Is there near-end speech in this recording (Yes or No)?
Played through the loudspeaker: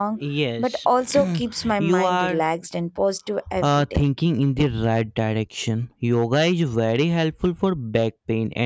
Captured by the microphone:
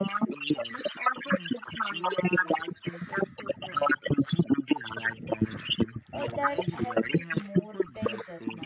Yes